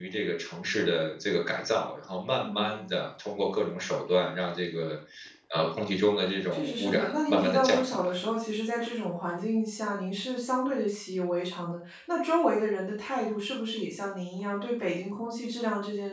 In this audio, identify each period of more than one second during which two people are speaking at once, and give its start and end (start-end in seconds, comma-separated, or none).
6.5-8.2